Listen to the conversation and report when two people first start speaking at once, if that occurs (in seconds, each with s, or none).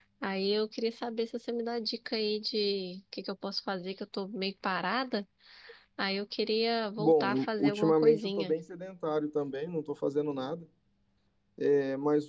7.0 s